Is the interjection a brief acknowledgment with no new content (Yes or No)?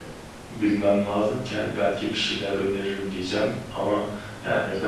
No